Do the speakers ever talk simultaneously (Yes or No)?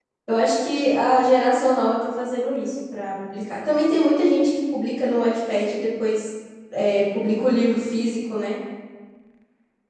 No